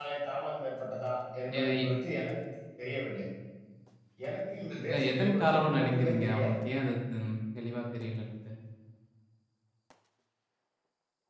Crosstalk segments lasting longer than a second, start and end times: 4.9-6.5

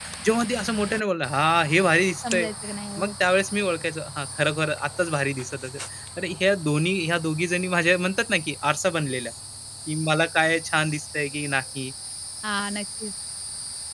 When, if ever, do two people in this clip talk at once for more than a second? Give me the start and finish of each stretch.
none

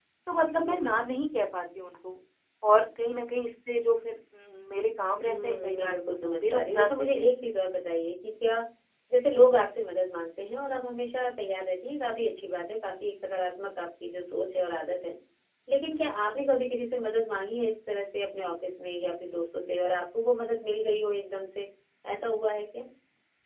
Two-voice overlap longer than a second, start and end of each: 5.3-7.3

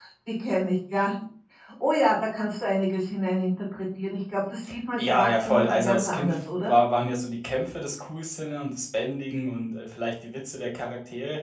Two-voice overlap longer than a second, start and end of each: 5.0-6.7

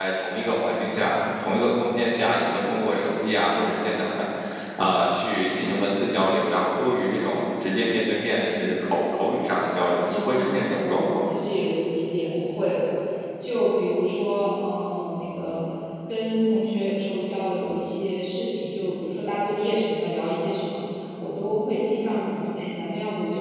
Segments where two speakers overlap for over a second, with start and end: 10.0-11.4

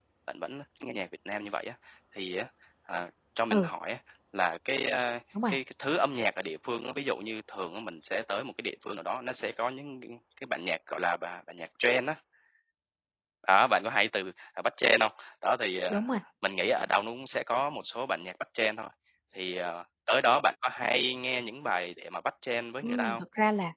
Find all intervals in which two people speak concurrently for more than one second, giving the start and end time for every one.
none

